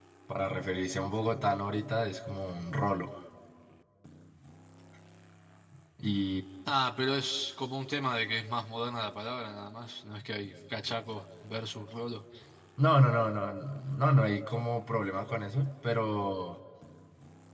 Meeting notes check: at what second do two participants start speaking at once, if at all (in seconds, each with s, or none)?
none